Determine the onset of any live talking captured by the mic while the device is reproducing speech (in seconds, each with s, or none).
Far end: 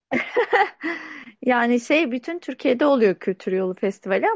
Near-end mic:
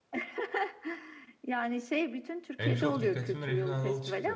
2.6 s